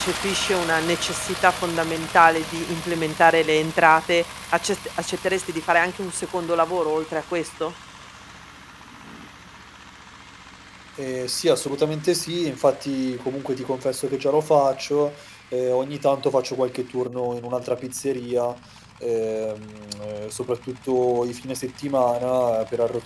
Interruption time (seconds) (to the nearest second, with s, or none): none